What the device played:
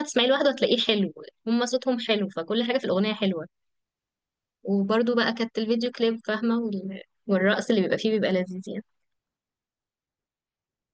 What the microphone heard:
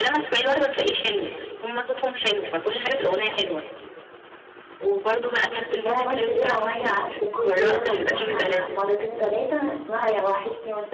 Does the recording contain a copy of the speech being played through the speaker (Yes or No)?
Yes